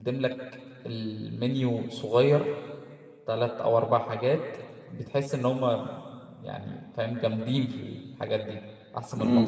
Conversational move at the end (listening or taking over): listening